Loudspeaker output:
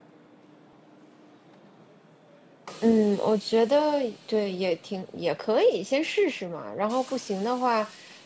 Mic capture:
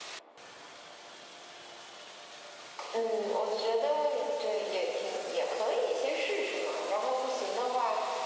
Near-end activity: none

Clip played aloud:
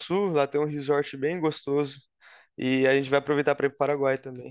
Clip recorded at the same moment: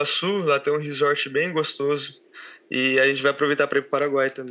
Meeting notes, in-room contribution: none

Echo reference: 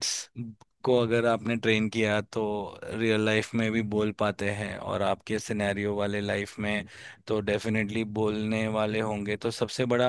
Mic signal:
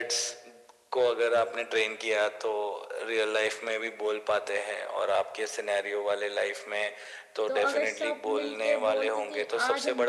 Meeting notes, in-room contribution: present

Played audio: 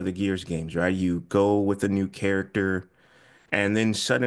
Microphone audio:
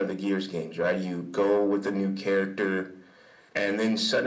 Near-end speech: none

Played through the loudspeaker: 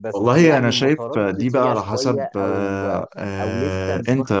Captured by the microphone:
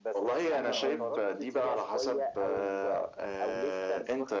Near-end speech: present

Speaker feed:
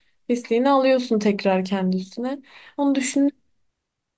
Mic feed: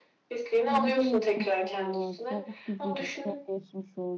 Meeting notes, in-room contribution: present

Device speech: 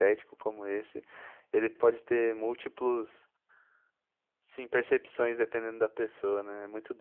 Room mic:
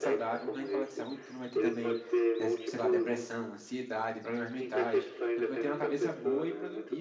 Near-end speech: present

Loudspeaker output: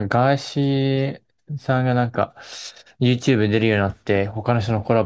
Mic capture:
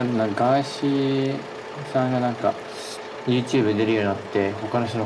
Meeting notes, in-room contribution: none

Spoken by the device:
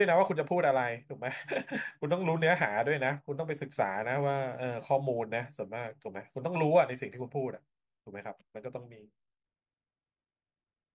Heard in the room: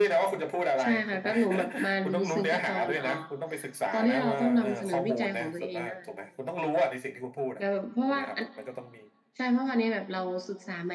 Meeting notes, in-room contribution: present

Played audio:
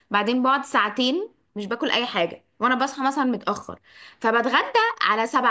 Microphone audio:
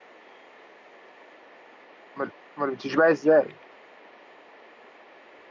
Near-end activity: present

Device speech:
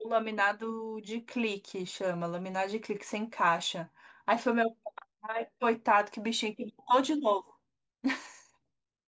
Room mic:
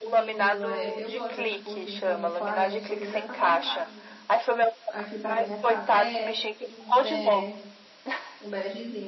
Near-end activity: present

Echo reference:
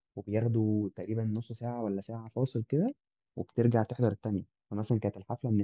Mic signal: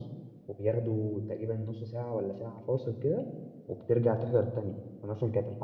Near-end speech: none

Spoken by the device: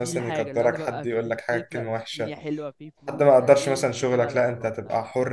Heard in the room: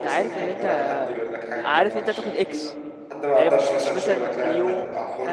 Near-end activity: present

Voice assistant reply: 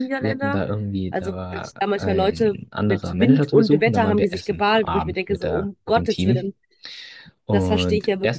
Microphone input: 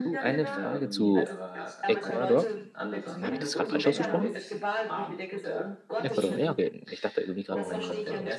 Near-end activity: present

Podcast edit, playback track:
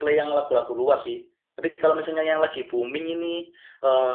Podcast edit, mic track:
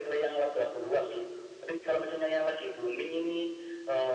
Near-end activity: none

